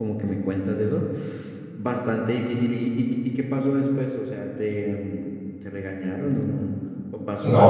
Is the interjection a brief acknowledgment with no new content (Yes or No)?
No